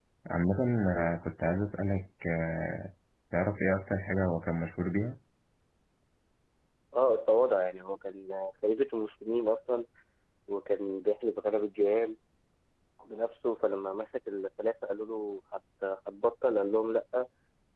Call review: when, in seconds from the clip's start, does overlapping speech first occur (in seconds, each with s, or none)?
none